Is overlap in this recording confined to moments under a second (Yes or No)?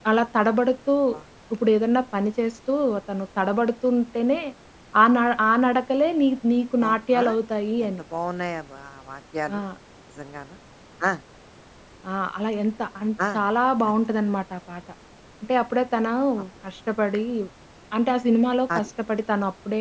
Yes